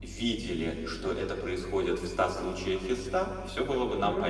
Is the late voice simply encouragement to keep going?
Yes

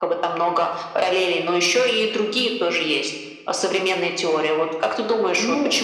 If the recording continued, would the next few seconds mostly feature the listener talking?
No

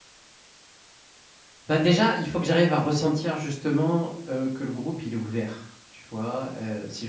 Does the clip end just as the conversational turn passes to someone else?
No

